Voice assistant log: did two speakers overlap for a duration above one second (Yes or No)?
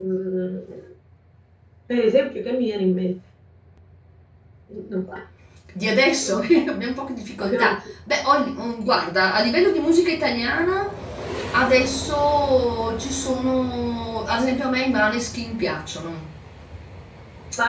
No